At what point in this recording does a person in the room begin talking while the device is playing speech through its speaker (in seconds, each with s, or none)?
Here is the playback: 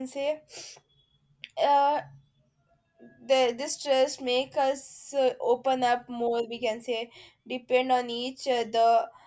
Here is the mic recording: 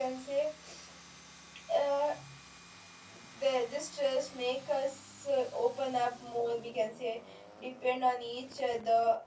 none